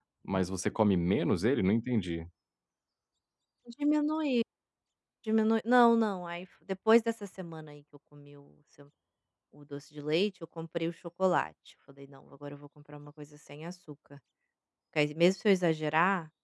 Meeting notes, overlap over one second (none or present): none